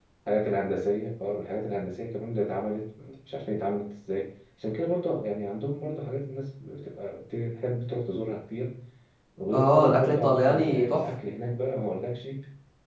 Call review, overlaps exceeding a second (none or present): present